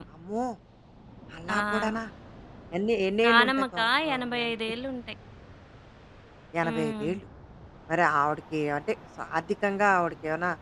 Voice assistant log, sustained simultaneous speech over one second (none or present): present